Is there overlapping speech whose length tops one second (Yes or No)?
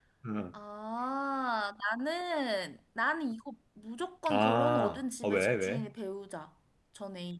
Yes